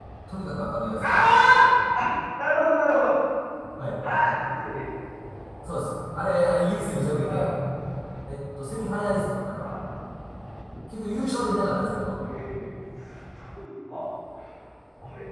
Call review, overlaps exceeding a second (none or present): none